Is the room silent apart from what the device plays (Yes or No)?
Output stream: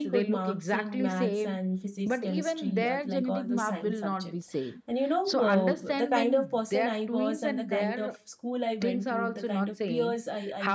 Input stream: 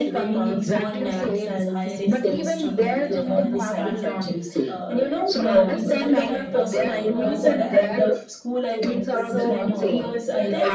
No